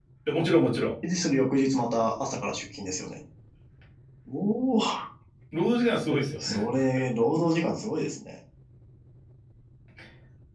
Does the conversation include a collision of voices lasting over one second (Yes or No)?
No